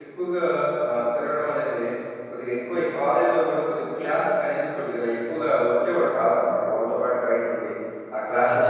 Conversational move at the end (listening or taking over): listening